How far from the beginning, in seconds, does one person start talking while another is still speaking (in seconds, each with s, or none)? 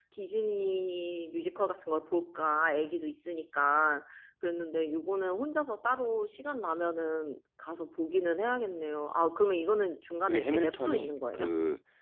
10.2 s